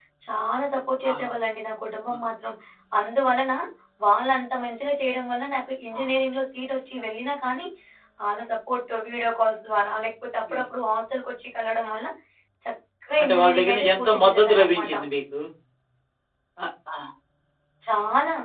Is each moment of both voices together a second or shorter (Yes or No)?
No